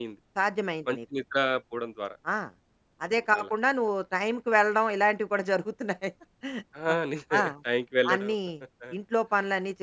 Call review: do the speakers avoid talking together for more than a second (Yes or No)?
Yes